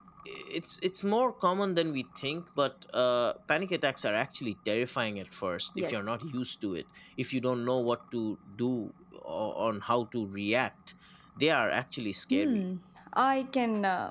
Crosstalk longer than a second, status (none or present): none